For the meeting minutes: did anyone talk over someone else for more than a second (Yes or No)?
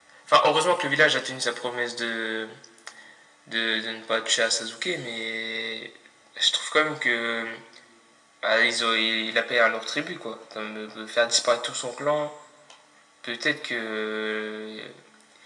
No